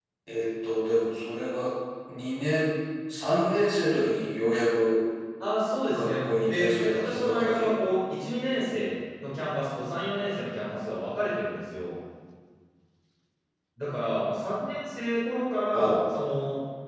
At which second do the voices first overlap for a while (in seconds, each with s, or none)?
5.9 s